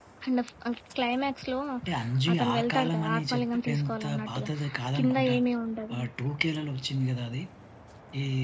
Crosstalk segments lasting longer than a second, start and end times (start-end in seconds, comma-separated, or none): 2.3-4.5